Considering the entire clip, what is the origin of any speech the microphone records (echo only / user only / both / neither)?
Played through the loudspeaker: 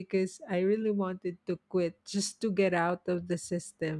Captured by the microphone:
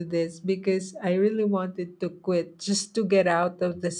echo only